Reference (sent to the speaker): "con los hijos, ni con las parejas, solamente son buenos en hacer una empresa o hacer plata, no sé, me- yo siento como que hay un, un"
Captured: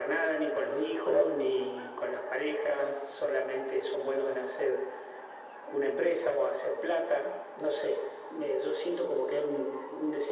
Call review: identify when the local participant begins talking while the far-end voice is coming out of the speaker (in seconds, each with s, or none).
none